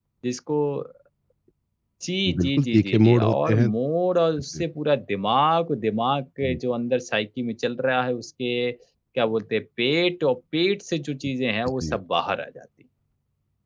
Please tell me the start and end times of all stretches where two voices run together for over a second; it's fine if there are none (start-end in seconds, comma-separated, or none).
2.4-3.7